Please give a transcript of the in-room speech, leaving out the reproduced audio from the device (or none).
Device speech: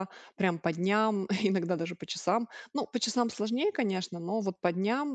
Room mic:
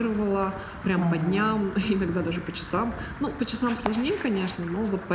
Мгм.